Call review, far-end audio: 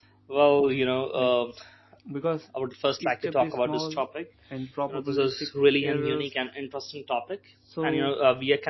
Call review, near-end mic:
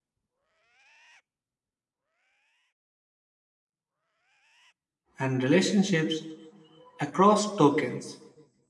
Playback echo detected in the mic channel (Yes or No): No